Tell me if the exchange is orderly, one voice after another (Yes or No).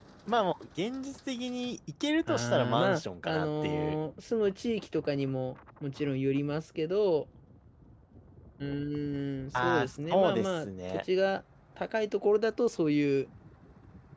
No